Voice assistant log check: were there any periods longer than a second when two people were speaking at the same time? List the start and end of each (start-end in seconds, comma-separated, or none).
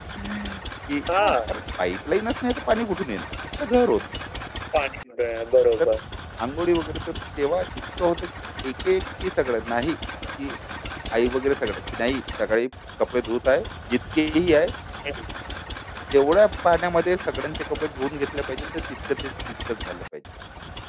none